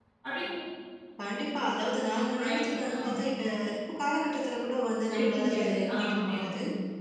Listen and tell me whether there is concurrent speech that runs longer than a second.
Yes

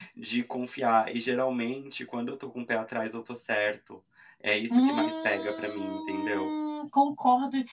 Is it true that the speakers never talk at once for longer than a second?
No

